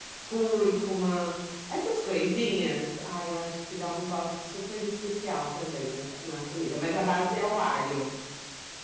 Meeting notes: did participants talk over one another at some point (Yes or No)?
No